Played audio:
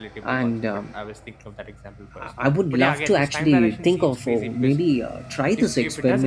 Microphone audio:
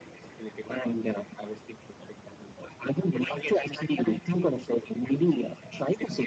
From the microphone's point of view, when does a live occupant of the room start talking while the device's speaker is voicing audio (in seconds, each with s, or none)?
none